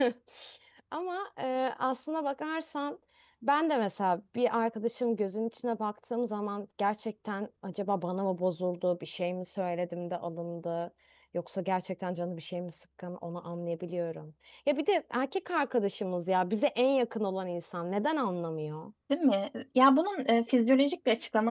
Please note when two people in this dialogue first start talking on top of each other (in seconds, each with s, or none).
none